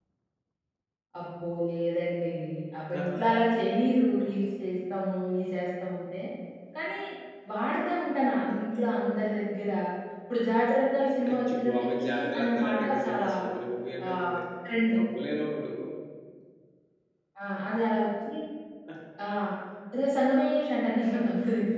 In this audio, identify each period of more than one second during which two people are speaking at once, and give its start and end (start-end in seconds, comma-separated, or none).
11.3-13.3